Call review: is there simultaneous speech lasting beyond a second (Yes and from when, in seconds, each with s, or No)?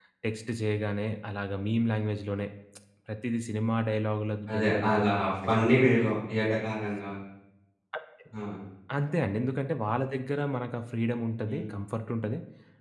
Yes, from 4.5 s